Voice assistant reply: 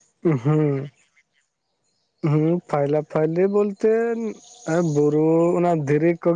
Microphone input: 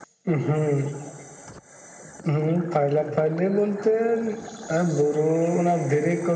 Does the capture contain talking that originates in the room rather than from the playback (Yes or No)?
No